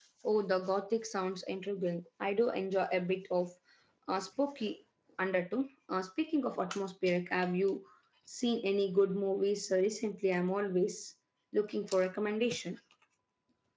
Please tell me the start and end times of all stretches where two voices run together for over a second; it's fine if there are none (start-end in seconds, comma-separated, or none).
none